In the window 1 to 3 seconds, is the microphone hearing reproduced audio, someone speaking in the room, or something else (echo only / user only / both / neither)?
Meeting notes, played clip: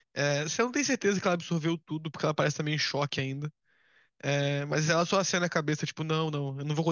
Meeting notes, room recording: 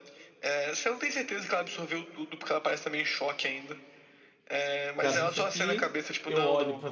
echo only